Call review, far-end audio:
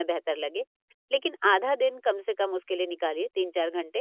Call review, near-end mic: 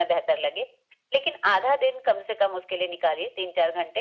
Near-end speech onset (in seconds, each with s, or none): none